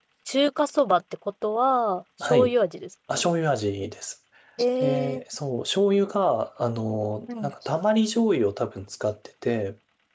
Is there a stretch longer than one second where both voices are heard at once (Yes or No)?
No